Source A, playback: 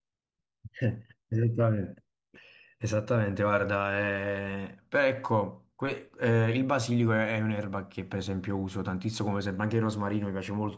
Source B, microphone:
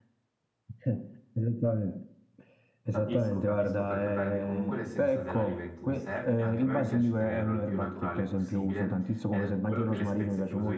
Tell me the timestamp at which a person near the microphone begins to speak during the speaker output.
3 s

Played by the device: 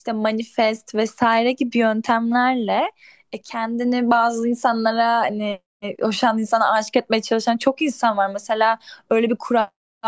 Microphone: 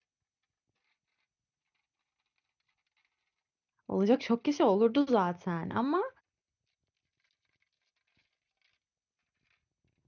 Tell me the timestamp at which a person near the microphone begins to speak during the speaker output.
4 s

